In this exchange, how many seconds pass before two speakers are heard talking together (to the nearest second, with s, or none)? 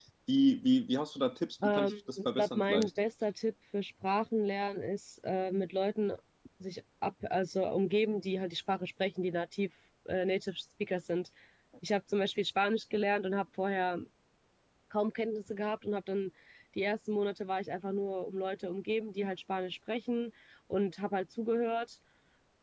2 s